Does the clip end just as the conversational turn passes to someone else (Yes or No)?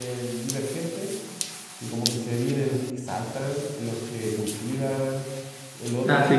Yes